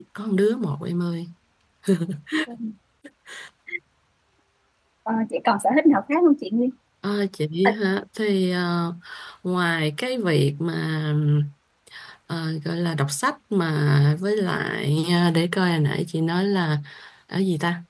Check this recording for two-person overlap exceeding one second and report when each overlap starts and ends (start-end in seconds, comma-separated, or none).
none